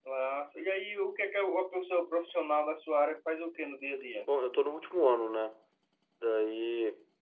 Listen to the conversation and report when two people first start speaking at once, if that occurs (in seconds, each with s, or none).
none